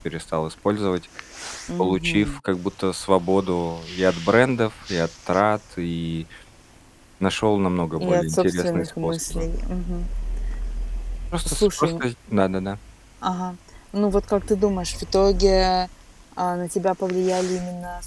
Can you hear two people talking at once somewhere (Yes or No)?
Yes